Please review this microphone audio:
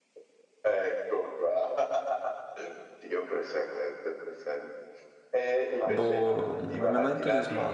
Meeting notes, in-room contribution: present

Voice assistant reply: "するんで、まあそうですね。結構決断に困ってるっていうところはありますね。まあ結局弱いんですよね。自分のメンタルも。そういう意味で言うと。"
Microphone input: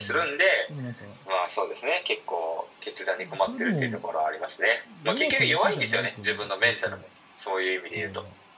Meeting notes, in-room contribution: present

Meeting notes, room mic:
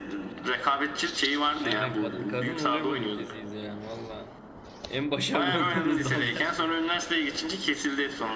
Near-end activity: present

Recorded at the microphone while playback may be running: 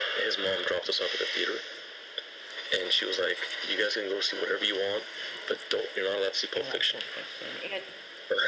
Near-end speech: present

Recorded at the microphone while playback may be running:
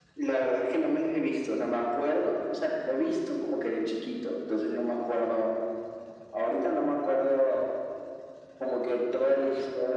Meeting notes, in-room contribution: none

